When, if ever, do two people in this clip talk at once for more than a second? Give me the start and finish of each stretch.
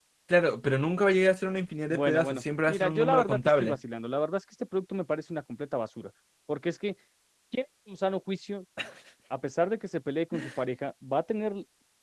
1.9-3.8

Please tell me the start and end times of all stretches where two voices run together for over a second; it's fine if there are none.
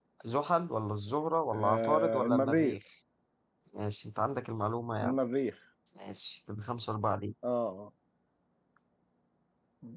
1.5-2.8

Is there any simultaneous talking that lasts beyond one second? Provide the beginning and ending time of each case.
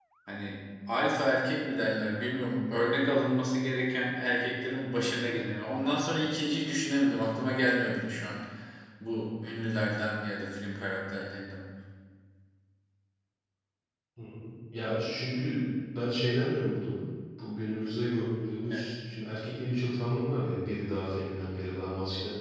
none

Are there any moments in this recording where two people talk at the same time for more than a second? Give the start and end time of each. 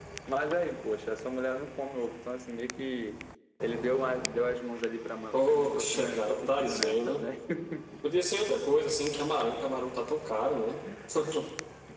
5.3-7.3

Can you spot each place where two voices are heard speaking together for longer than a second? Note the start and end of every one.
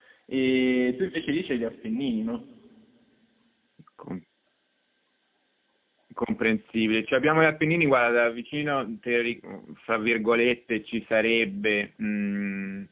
none

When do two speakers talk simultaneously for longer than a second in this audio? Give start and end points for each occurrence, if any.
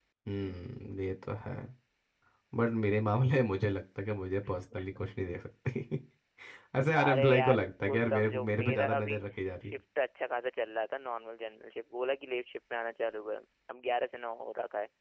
7.0-9.2

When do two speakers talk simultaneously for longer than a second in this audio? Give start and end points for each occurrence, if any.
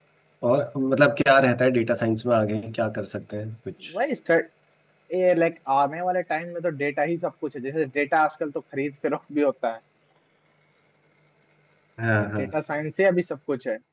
none

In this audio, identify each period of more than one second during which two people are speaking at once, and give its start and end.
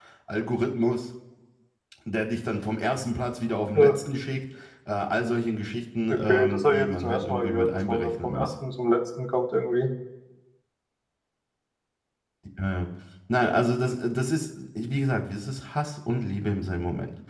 6.1-8.5

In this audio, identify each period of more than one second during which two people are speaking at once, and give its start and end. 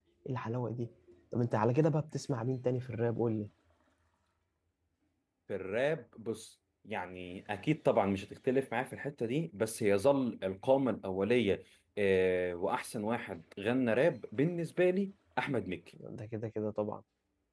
none

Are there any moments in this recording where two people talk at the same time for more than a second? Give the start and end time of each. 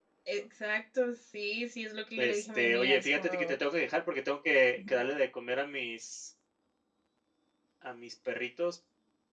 2.2-3.5

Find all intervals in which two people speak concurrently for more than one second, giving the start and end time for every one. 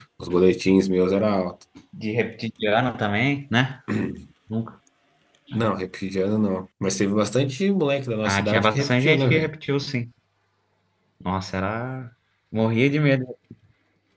8.2-9.5

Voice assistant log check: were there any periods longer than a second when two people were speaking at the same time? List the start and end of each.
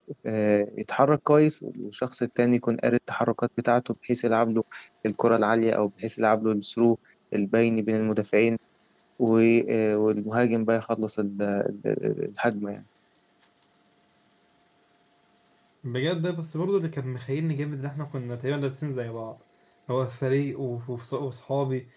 none

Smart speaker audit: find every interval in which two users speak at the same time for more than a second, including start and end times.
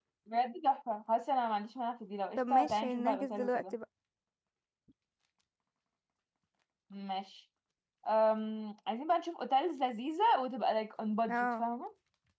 2.4-3.7

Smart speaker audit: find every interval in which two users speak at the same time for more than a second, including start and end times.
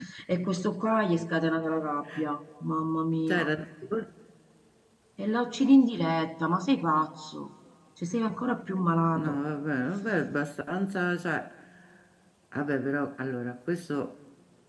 none

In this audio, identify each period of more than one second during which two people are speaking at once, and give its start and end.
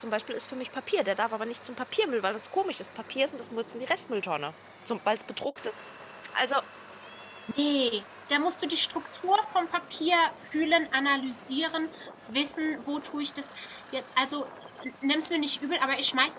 none

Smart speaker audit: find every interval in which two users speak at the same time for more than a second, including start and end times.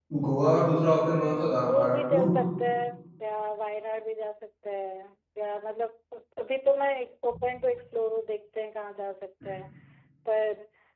1.1-2.3

